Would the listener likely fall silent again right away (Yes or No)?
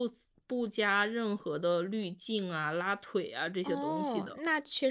No